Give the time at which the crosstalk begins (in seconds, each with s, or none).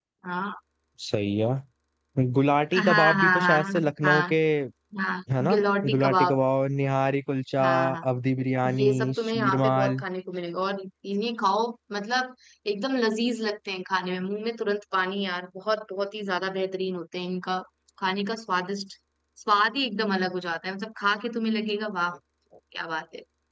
2.8 s